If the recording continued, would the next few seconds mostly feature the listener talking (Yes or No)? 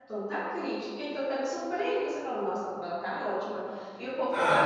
Yes